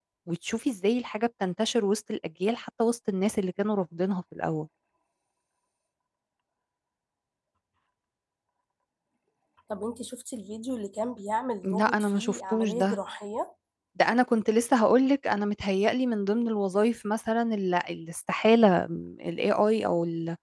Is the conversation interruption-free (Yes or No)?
No